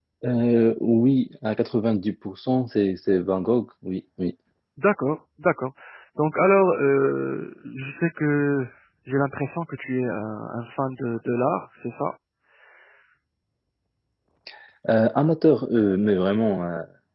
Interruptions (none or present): none